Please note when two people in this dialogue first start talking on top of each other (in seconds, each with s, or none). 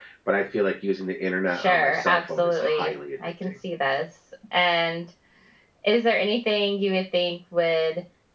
1.5 s